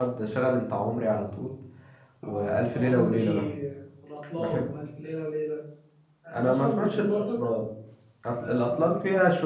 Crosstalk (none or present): present